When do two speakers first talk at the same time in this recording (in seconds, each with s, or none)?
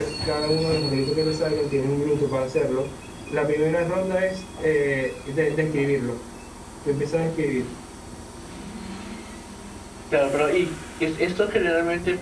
none